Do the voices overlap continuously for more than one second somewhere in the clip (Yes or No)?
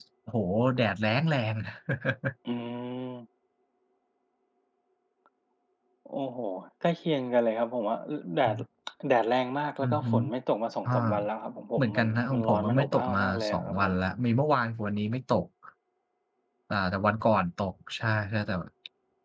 Yes